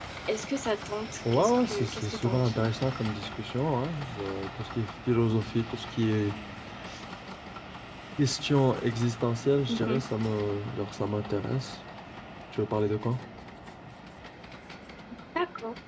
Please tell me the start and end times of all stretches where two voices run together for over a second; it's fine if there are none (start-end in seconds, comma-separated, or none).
1.3-2.7